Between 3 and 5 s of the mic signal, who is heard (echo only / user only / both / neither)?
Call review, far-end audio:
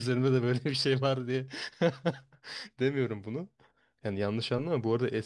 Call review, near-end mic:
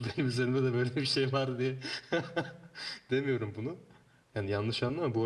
echo only